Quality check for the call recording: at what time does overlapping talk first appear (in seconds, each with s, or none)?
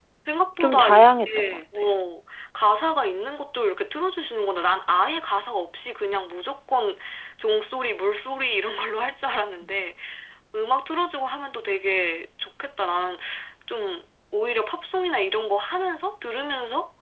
0.6 s